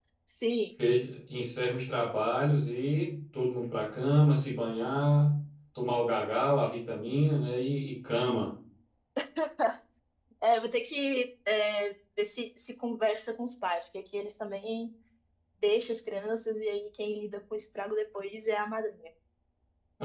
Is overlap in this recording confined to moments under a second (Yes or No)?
Yes